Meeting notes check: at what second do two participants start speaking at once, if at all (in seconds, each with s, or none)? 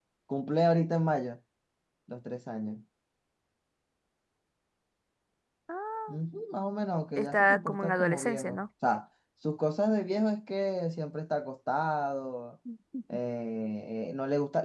7.2 s